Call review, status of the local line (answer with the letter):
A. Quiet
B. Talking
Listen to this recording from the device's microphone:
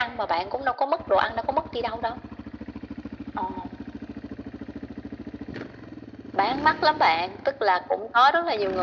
A